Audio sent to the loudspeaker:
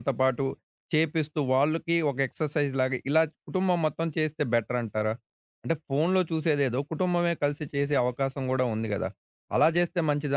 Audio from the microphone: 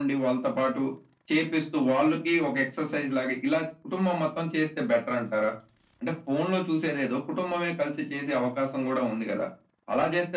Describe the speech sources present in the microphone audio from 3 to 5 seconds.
echo only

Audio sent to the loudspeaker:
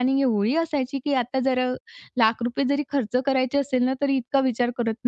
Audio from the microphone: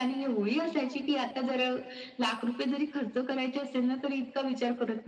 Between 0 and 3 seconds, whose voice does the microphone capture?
echo only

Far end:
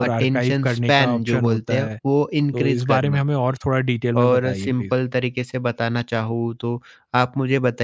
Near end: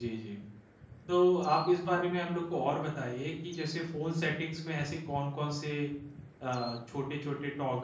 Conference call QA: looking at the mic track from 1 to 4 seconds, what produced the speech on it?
user only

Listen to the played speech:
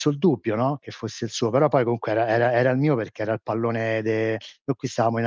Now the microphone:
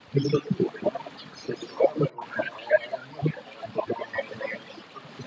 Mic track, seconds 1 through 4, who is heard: echo only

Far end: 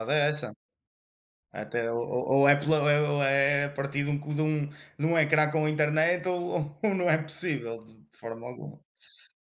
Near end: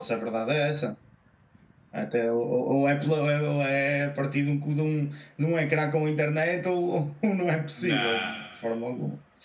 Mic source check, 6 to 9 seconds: both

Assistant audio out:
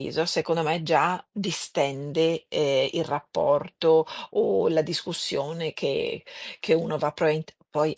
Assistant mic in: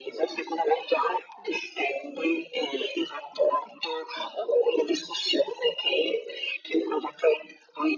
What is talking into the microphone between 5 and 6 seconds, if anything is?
echo only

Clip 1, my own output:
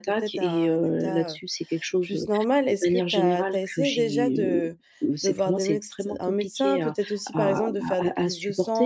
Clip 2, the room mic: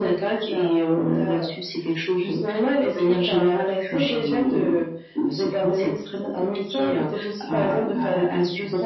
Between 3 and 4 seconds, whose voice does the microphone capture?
echo only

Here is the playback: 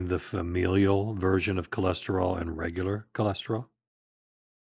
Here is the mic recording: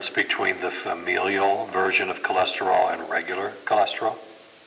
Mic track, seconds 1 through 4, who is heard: echo only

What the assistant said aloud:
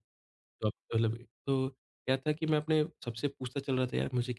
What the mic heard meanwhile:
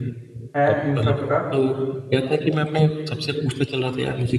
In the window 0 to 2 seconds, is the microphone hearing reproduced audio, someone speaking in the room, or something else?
both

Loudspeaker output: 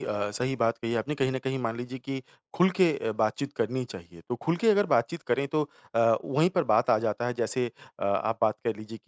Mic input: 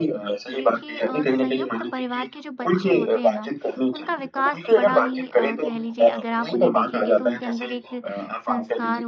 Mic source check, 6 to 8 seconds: both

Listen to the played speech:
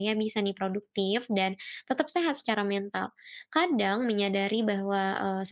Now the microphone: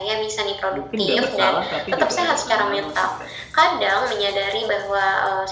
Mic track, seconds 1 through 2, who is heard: both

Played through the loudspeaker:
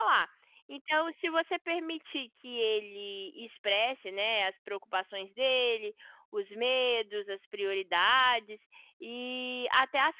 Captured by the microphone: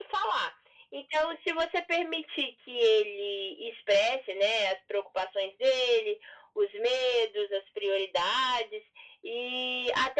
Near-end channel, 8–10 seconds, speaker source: echo only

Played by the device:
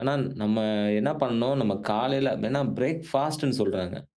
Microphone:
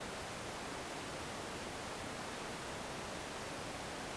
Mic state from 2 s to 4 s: neither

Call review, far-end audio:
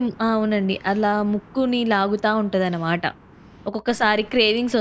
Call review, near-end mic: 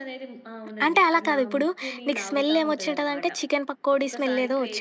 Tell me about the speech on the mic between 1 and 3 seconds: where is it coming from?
both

